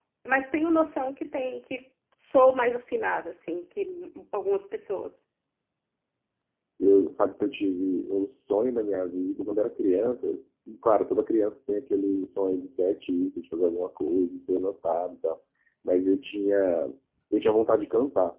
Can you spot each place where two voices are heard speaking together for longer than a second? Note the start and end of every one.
none

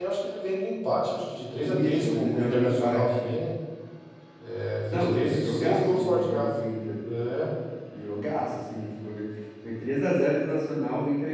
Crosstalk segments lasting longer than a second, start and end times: 1.6-3.3, 4.9-6.5

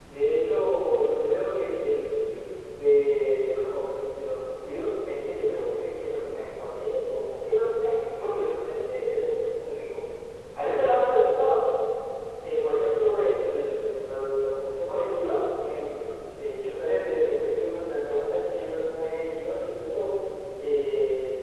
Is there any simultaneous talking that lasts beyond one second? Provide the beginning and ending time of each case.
none

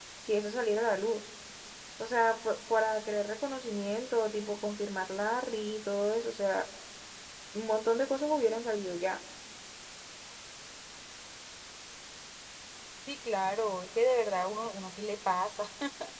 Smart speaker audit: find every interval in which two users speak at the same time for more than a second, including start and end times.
none

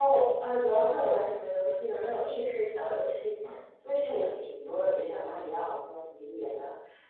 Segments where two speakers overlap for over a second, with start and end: none

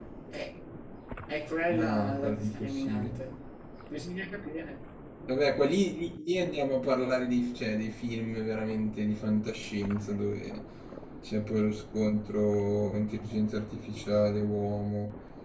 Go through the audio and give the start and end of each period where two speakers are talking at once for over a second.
1.7-3.1

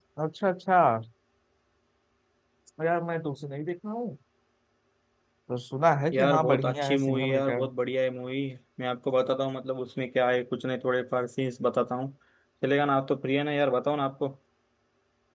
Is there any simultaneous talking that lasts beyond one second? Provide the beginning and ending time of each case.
6.1-7.7

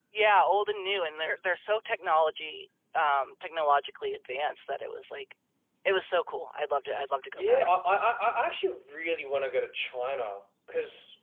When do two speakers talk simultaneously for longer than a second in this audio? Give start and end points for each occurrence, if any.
none

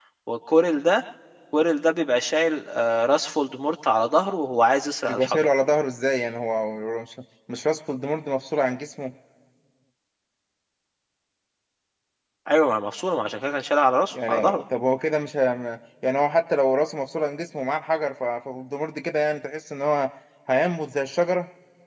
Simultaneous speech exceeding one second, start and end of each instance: none

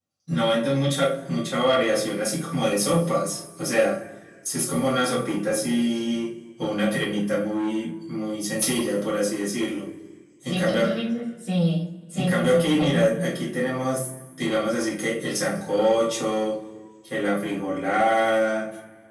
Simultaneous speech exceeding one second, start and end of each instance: 12.1-13.4

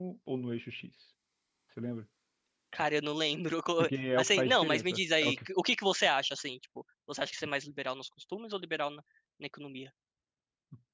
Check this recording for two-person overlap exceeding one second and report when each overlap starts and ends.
3.8-5.4

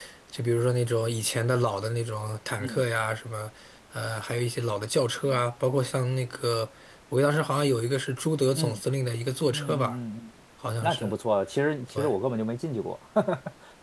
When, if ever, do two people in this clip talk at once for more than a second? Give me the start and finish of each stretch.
none

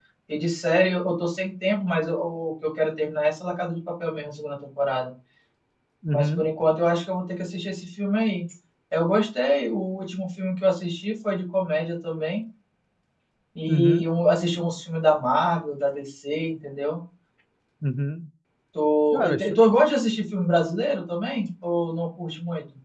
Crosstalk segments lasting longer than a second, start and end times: none

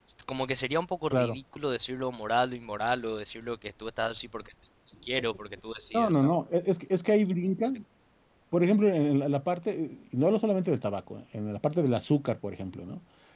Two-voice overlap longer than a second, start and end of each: none

